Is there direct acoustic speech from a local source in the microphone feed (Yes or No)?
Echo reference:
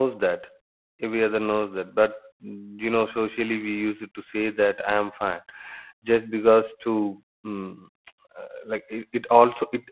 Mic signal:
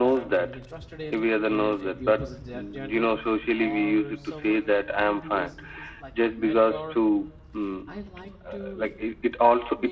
Yes